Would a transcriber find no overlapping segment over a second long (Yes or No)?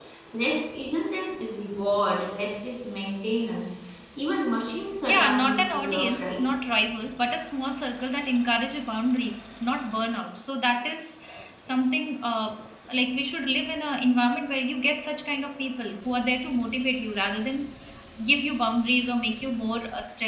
No